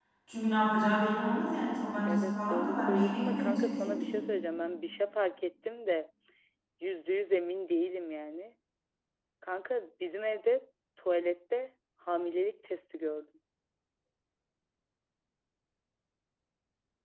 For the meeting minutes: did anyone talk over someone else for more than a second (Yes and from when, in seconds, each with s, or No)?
Yes, from 2.1 s